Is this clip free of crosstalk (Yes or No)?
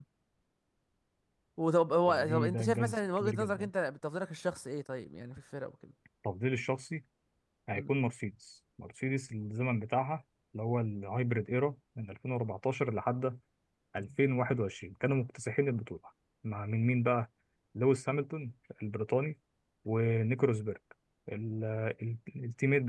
No